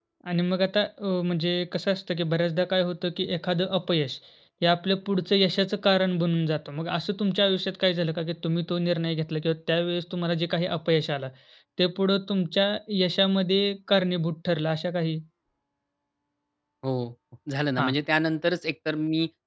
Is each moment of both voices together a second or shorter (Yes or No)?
Yes